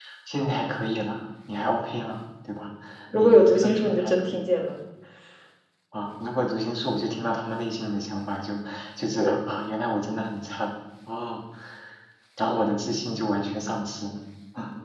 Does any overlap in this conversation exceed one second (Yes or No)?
Yes